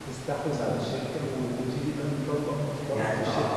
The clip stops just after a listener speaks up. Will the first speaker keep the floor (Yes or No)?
No